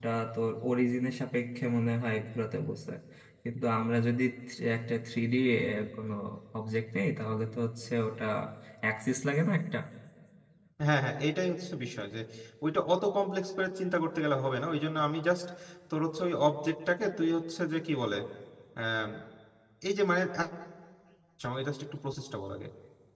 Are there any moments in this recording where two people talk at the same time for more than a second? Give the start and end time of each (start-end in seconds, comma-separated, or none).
none